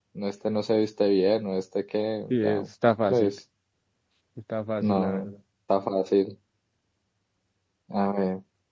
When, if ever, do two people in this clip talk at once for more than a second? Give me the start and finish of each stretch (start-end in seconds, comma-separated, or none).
none